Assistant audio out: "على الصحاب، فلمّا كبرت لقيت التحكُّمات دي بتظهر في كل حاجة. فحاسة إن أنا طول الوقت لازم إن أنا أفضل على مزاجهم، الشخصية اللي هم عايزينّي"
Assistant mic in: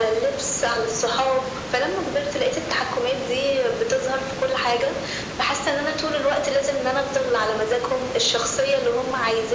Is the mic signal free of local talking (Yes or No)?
Yes